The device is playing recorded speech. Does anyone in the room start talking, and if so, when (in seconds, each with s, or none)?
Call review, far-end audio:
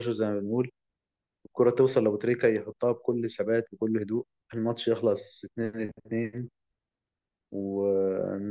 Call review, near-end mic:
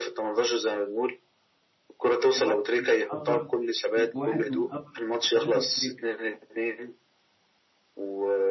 2.3 s